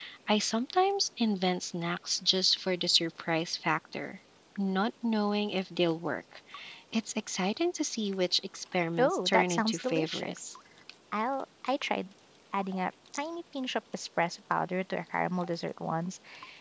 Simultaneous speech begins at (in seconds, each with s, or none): 9.0 s